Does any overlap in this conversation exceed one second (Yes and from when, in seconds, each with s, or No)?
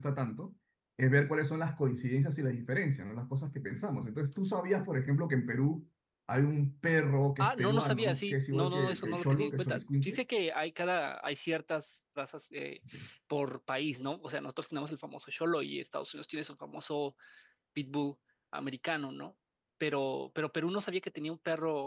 Yes, from 7.4 s